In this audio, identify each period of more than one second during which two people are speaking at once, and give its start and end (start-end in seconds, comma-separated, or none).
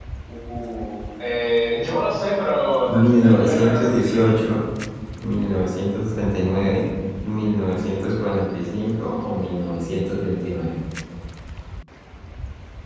2.9-4.4